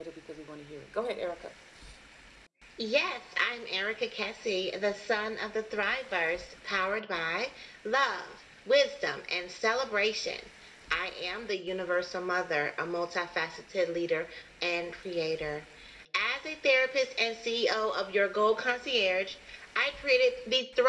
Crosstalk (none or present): none